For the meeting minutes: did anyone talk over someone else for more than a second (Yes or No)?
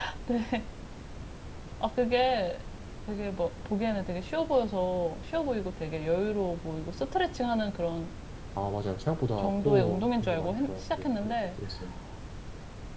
Yes